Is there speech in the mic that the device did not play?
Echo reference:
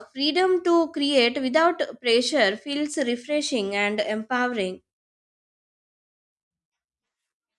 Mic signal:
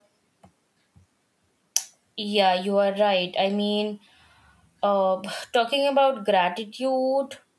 Yes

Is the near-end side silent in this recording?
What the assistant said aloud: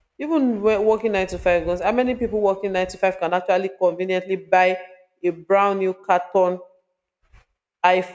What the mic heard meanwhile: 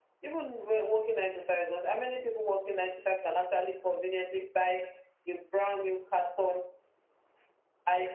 Yes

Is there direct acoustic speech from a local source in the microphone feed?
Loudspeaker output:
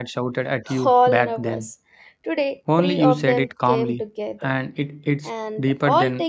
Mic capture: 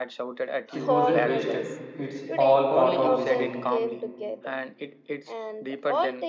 Yes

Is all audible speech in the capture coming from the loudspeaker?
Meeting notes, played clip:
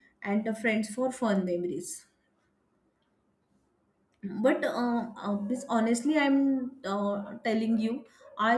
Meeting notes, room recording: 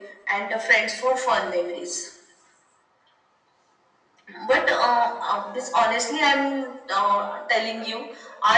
Yes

